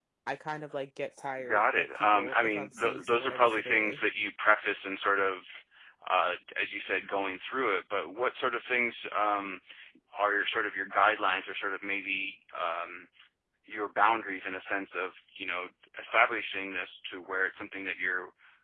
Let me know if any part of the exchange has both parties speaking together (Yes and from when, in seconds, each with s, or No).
Yes, from 1.4 s